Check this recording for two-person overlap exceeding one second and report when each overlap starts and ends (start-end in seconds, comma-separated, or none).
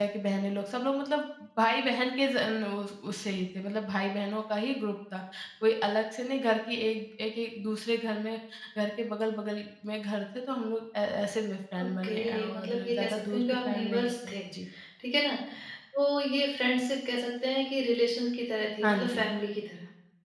11.8-14.3